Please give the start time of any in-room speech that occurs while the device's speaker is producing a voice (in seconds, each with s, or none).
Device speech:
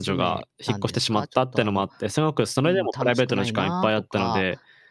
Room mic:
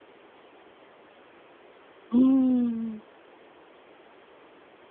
2.1 s